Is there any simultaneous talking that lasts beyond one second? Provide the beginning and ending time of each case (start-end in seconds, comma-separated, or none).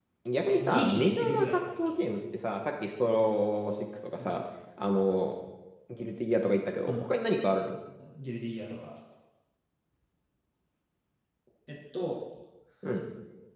0.6-1.9